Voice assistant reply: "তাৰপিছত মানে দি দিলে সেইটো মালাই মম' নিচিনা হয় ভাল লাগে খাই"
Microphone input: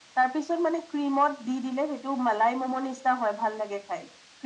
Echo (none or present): present